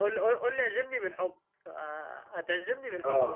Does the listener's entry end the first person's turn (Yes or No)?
Yes